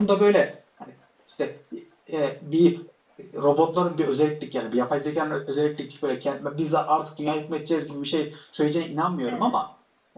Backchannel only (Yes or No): Yes